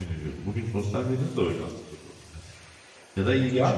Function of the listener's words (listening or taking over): taking over